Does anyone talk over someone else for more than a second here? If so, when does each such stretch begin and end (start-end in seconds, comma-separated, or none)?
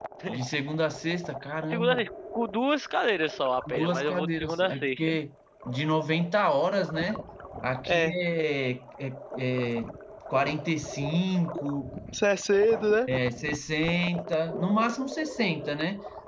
3.7-5.0